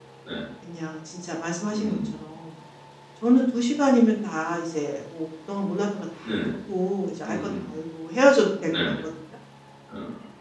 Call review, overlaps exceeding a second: none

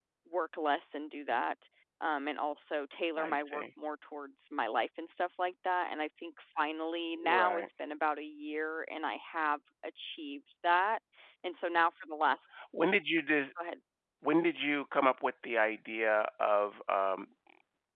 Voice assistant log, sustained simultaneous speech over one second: none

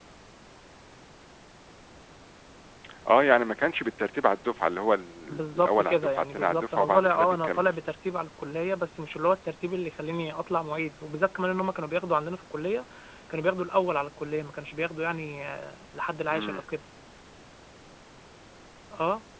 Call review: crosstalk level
present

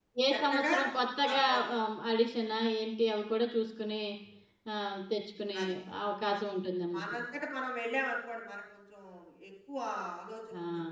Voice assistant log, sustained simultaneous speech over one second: none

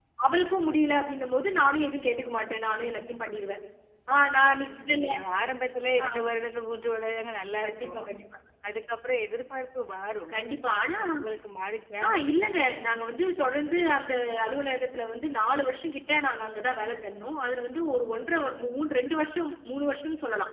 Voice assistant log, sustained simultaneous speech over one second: none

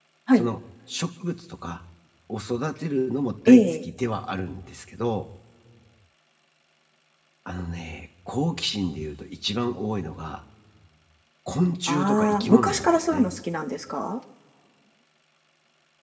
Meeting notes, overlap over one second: present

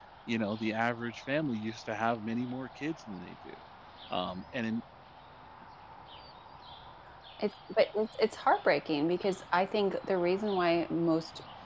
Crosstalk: none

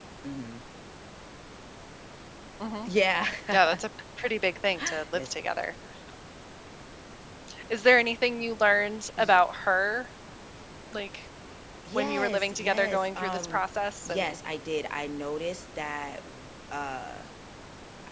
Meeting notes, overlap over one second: present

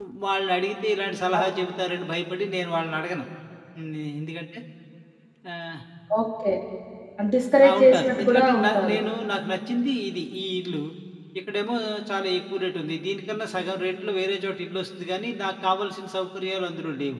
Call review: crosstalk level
present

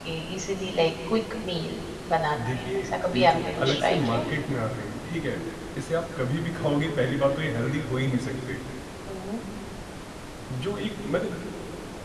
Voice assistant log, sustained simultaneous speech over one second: present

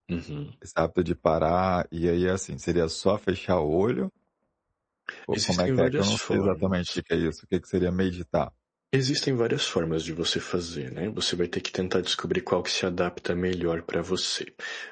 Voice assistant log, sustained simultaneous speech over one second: present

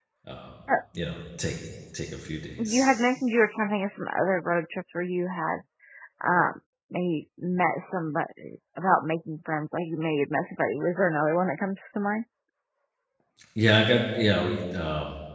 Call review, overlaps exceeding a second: none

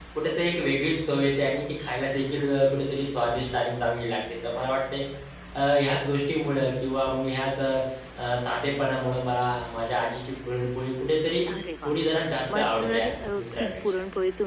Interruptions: present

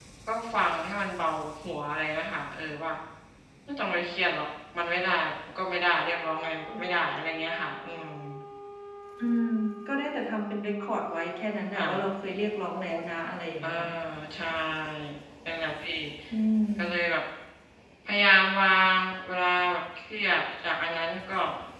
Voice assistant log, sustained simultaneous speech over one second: none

